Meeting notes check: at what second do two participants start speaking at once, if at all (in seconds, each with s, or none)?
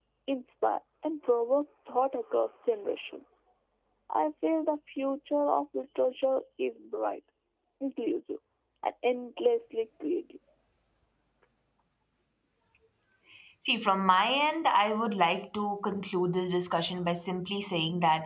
none